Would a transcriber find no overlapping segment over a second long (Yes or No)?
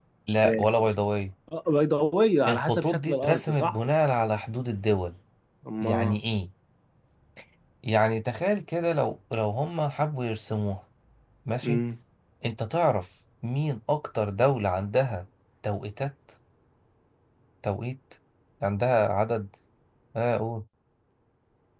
No